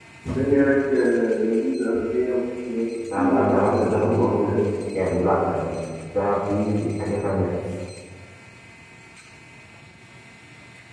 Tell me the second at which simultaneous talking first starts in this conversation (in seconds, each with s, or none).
3.0 s